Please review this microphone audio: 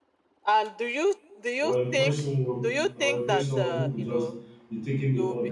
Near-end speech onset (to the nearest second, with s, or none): 2 s